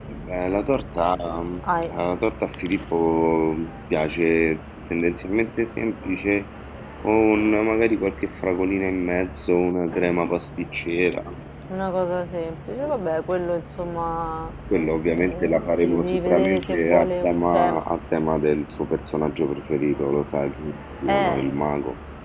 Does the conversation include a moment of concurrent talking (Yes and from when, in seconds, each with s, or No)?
Yes, from 15.1 s